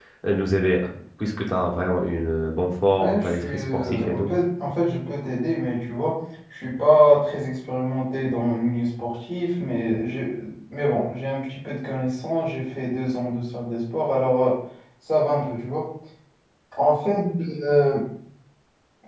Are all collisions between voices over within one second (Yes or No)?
No